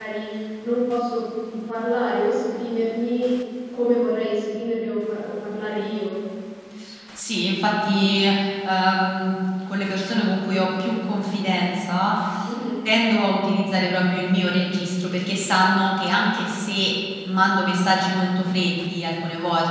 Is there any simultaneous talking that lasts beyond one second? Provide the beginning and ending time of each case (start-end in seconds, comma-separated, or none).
none